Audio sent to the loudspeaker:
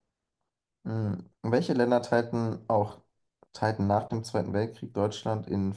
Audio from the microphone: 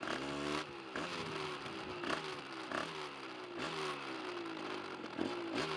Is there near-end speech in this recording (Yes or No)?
No